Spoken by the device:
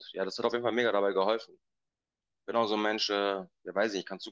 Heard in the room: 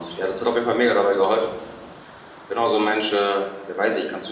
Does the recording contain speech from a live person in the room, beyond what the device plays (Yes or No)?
No